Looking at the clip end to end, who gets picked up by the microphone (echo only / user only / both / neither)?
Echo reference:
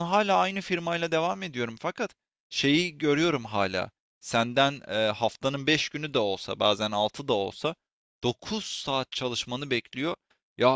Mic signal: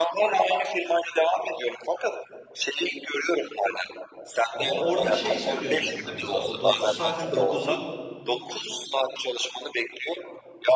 both